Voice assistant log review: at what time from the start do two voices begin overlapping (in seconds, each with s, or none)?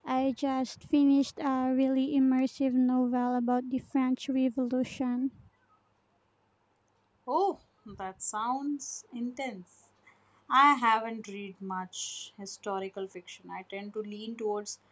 none